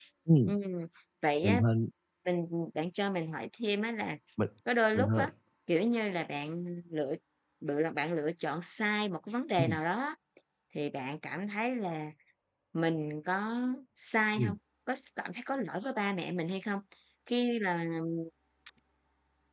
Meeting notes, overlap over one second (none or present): none